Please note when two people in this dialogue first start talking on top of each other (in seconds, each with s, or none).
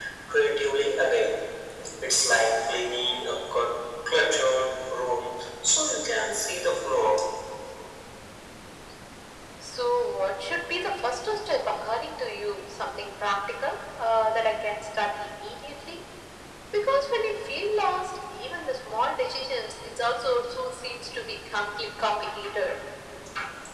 none